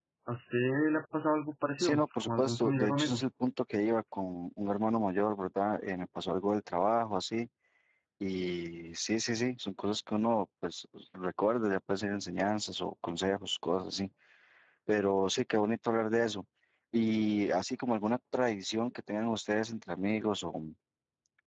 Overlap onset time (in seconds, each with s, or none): 1.8 s